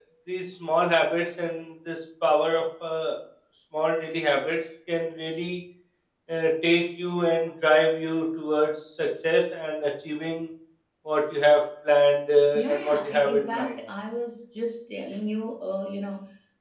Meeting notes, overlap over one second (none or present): present